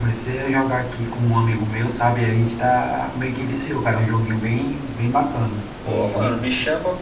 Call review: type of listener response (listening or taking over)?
taking over